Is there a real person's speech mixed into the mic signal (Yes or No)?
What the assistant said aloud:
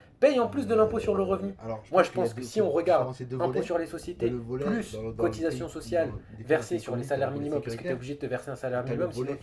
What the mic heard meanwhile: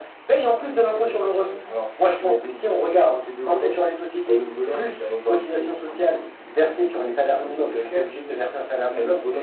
No